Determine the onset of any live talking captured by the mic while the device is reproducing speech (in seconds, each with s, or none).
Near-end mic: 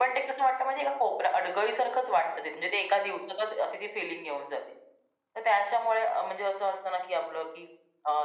none